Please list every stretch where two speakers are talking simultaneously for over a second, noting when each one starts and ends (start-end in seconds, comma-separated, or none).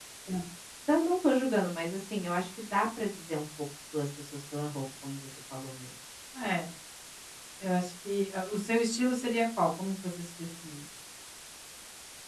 none